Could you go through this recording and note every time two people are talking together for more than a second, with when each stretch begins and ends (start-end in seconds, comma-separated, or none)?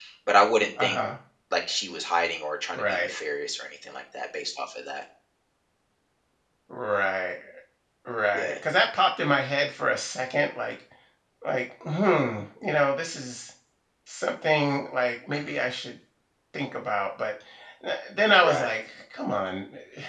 none